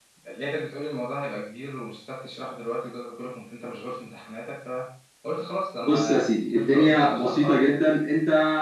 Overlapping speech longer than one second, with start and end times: 5.8-7.8

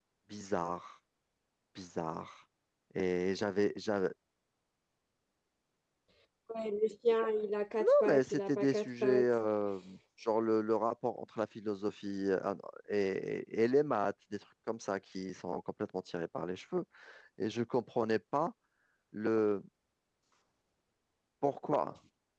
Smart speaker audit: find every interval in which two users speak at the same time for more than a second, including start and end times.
8.1-9.3

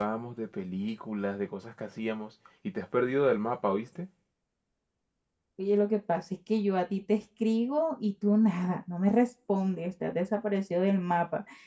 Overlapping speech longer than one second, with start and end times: none

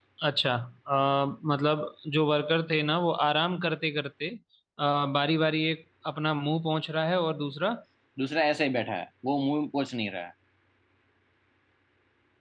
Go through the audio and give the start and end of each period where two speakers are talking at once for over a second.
none

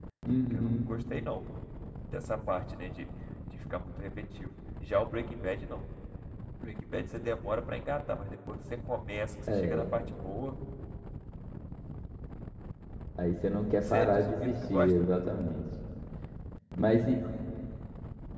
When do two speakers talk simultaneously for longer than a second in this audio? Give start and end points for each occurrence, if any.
13.8-15.1

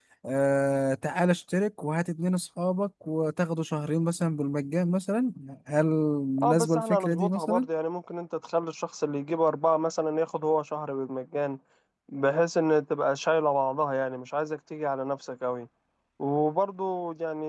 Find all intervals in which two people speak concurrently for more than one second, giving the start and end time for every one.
6.4-7.7

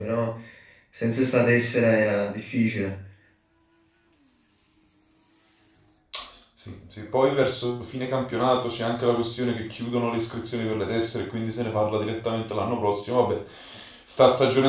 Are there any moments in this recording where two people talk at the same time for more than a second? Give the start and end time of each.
none

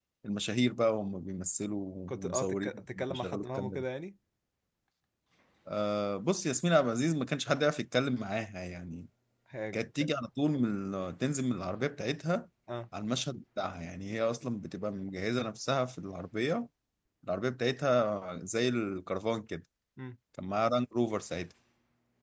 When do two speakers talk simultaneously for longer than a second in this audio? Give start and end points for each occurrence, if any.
2.1-3.8

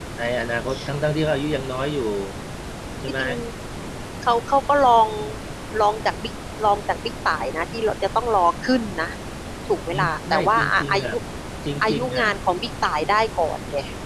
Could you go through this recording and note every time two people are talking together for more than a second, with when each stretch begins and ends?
9.9-11.1

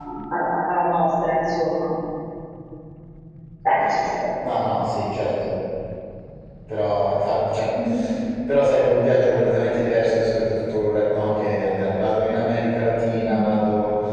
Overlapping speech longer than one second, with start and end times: none

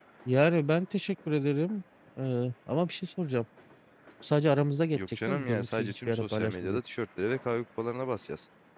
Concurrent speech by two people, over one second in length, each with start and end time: 4.9-6.8

